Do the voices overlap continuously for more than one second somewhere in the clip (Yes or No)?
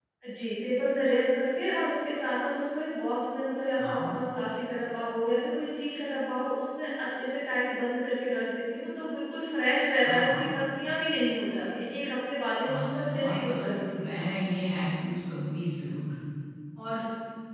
Yes